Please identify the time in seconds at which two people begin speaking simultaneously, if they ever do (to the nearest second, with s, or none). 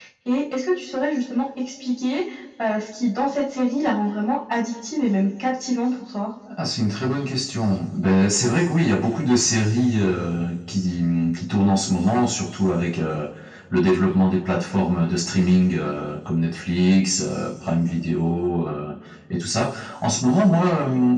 none